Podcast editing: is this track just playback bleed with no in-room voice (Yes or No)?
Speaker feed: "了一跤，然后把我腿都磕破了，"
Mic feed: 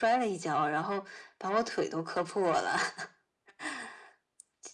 Yes